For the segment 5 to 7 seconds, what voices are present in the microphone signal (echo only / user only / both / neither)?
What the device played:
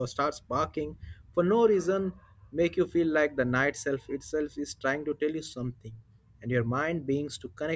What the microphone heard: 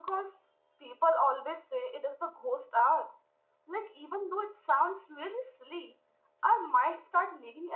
user only